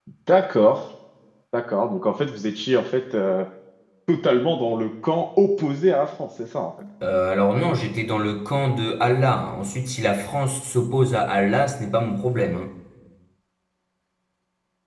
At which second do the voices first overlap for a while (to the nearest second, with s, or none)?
none